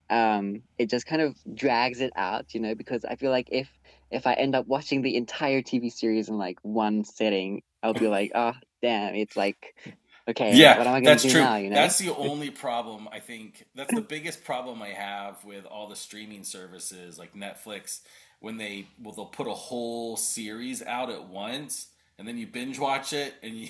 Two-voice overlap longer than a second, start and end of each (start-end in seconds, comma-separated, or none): 10.5-11.9